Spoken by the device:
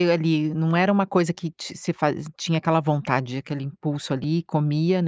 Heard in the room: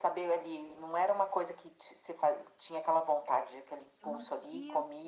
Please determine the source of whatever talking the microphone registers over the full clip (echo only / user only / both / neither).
both